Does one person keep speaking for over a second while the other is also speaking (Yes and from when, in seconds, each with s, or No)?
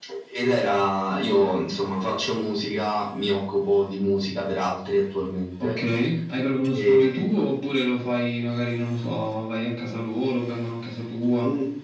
No